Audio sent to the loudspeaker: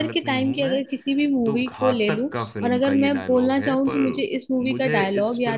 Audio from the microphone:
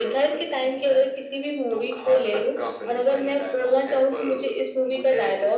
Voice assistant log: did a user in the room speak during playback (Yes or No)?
No